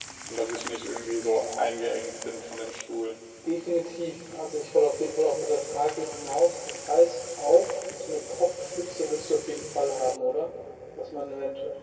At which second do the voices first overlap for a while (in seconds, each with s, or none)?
none